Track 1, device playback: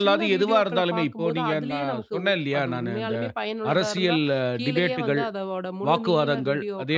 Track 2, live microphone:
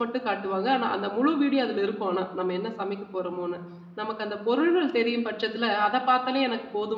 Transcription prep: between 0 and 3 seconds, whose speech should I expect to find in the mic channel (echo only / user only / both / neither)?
user only